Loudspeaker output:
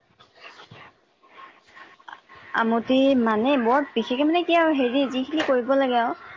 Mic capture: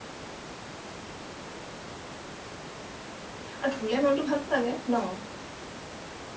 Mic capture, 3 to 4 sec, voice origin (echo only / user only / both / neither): user only